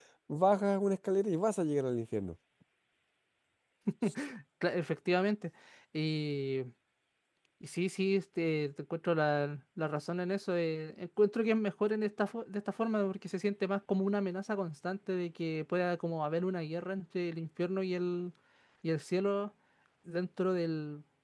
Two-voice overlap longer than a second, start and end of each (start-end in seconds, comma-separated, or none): none